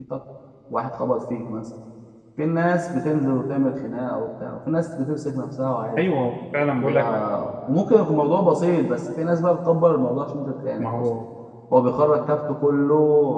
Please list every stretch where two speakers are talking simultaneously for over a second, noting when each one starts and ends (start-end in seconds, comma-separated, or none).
none